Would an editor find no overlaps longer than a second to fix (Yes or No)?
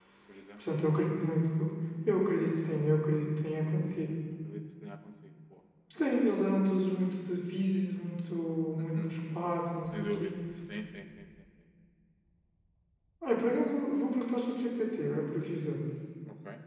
Yes